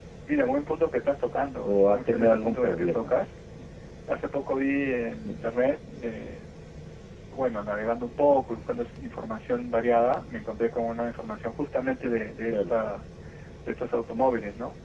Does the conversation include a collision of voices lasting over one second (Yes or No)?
Yes